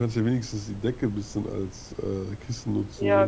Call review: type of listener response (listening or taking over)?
taking over